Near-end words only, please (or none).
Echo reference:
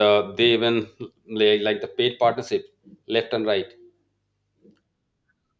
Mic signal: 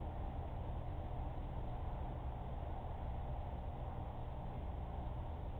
none